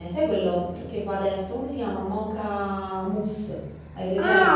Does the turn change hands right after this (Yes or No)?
Yes